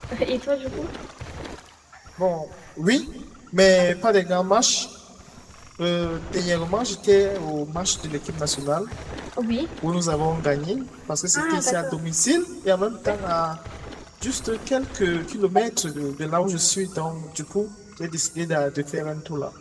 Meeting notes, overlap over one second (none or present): none